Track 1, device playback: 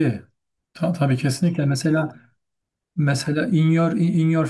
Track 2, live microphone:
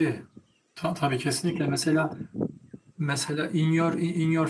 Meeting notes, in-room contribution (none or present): none